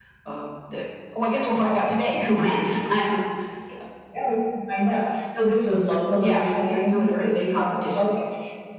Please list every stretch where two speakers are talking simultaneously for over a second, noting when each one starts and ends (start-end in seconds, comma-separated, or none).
6.2-8.1